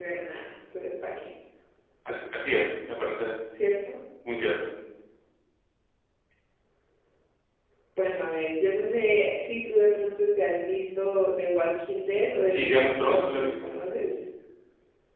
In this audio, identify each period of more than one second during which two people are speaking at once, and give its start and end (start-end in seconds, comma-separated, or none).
12.5-13.7